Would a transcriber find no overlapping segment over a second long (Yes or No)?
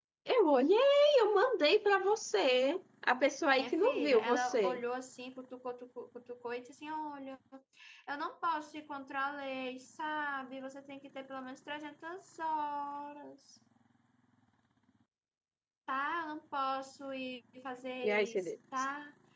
No